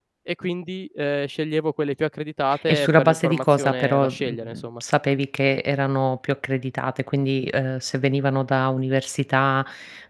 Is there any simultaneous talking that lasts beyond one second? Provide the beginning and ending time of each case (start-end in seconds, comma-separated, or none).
2.7-4.8